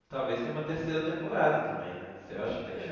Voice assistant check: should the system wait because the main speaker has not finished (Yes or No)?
No